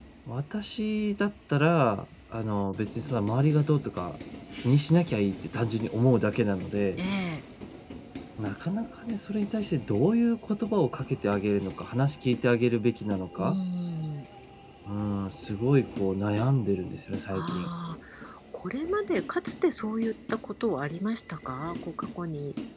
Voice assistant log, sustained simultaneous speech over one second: none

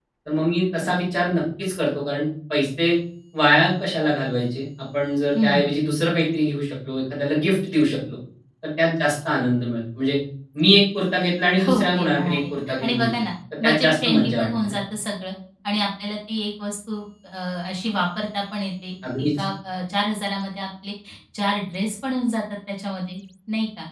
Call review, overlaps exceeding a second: present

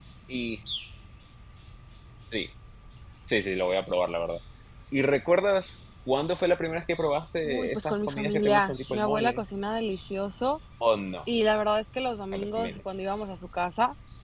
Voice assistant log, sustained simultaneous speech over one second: present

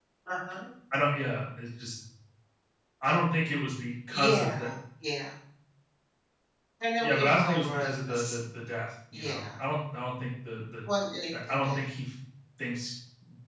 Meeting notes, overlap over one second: present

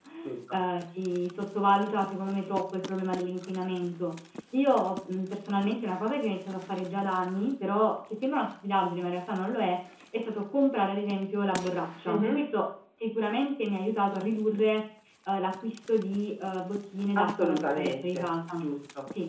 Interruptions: present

